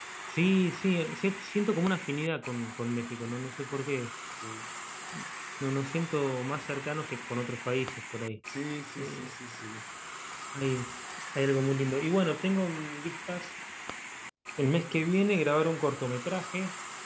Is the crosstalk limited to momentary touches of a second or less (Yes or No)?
Yes